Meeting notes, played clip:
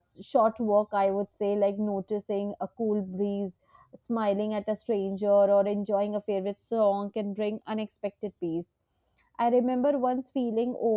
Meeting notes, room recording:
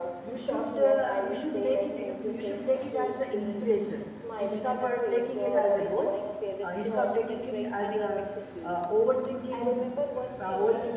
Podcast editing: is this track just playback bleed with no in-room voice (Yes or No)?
No